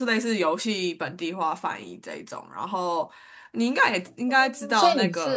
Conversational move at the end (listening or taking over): taking over